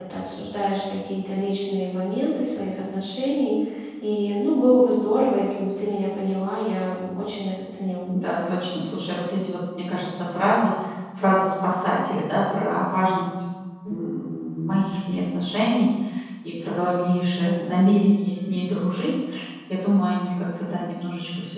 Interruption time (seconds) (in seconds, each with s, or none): none